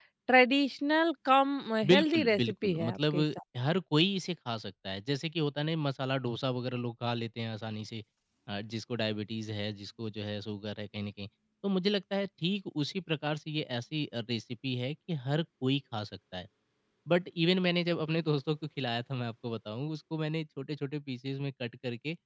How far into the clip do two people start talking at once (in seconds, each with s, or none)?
1.8 s